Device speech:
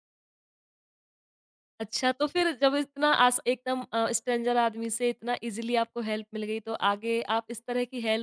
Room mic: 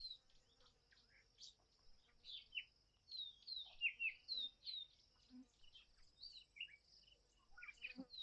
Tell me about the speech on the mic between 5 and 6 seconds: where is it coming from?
neither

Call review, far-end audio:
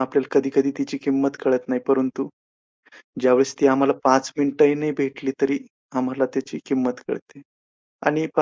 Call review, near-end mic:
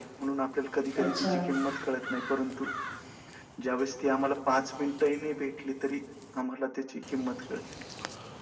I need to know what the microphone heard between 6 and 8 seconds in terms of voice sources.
echo only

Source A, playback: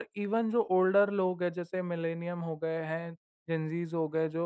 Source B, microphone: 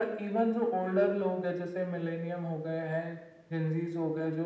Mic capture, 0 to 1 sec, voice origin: echo only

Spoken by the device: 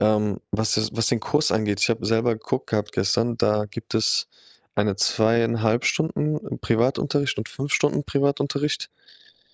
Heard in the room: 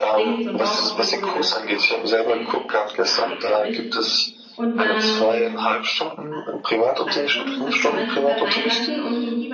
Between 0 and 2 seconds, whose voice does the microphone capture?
both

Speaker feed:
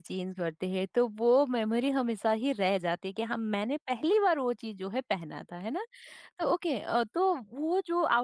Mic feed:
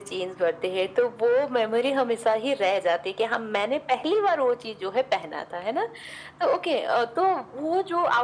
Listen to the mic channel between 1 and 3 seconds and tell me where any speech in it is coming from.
echo only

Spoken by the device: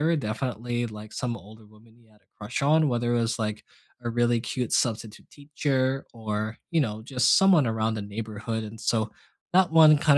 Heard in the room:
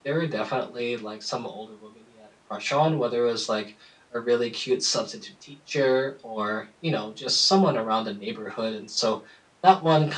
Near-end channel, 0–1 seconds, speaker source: echo only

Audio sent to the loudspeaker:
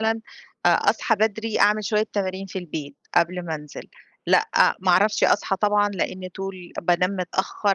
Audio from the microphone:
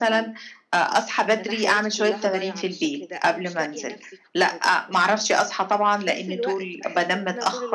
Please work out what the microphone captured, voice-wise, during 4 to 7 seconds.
both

